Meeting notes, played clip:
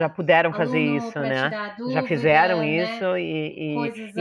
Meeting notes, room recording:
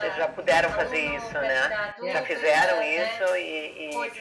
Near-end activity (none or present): present